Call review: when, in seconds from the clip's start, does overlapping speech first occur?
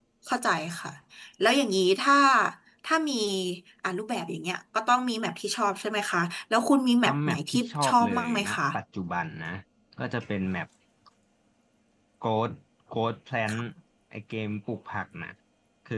7.0 s

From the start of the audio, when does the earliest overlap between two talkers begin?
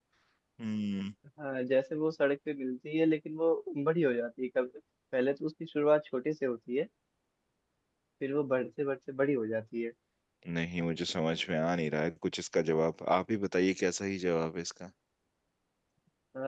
none

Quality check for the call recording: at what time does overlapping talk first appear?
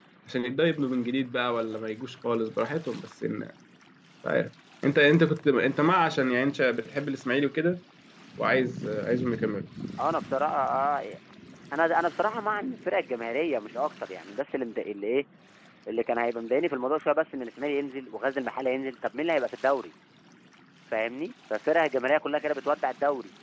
none

